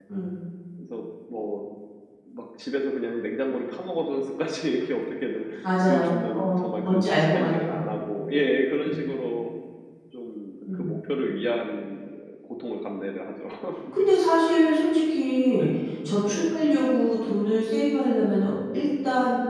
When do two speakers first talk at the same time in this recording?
6 s

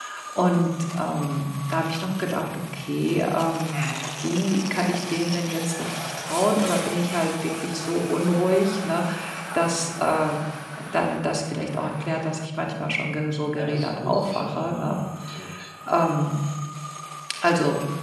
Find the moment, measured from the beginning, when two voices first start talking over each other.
13 s

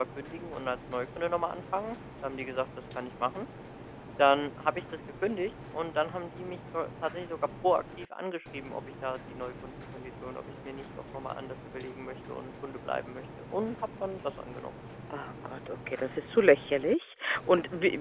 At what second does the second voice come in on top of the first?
none

